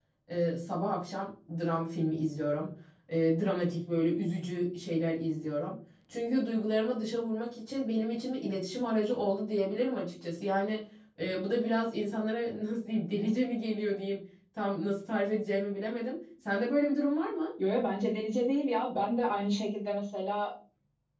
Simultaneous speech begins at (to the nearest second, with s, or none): none